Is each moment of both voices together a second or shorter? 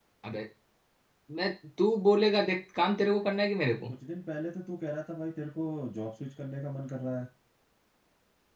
Yes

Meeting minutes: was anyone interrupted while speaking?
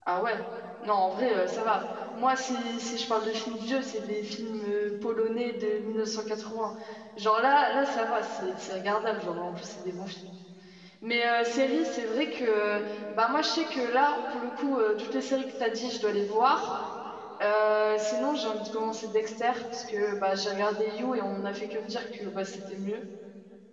No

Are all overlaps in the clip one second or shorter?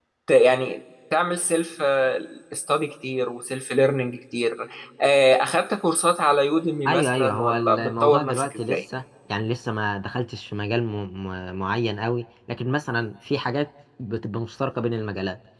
No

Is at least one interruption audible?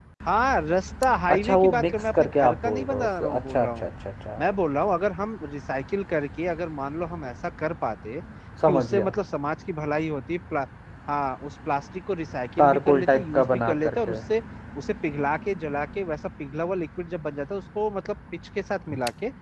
Yes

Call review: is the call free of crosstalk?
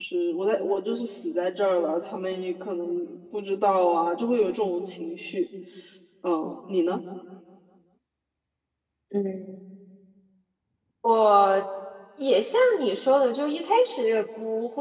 Yes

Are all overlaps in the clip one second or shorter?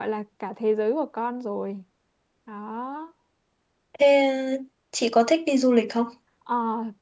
Yes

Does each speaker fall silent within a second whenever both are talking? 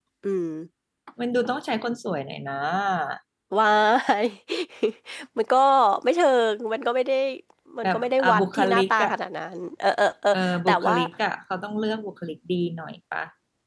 No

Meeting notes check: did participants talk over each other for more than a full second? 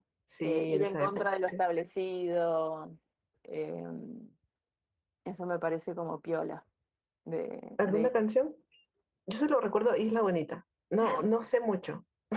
Yes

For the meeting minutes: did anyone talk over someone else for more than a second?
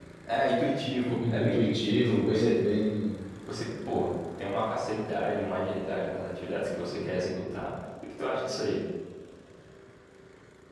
Yes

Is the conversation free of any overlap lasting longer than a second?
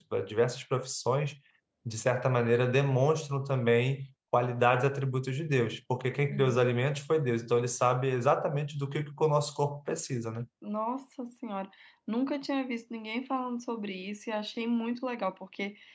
Yes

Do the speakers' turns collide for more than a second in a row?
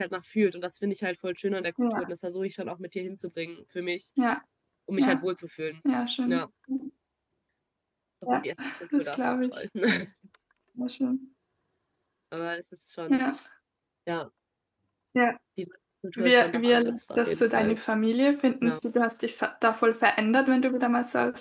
Yes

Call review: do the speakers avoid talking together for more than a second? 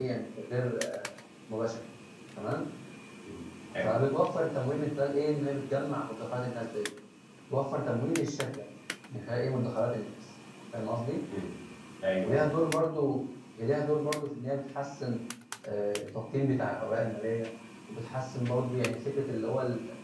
Yes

